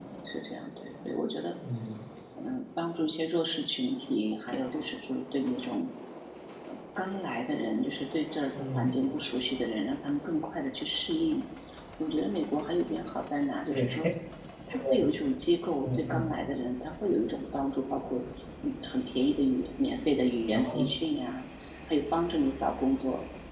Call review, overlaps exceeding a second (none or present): none